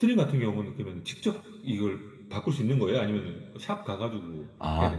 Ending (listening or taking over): taking over